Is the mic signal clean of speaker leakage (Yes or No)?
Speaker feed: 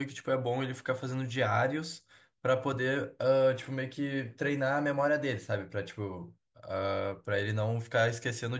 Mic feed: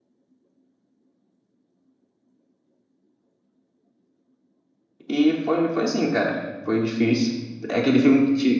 Yes